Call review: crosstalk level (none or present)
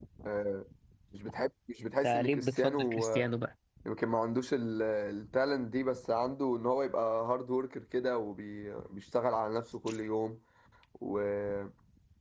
present